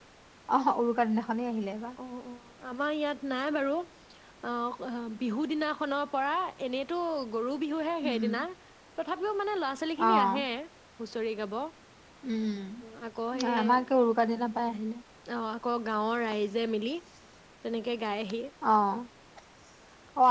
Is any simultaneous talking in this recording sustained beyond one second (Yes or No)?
No